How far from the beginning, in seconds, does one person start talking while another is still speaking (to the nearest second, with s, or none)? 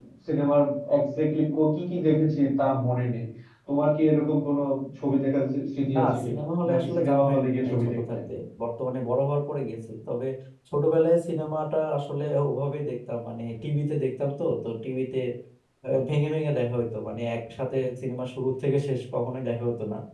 6 s